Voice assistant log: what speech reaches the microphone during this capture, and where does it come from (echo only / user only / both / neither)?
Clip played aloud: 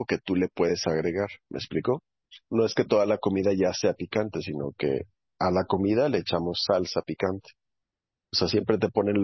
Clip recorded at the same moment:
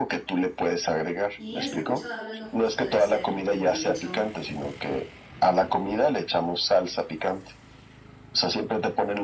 both